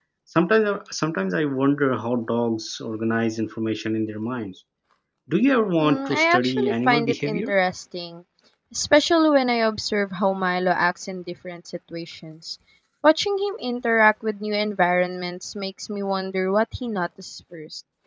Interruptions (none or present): present